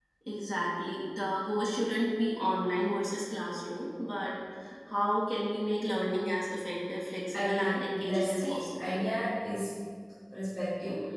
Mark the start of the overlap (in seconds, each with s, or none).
7.3 s